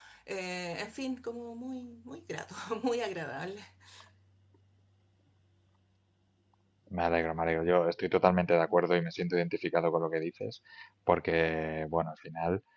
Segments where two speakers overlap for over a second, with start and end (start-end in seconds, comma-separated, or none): none